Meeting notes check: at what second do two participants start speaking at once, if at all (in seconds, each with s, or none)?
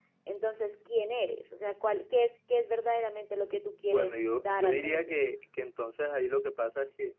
3.9 s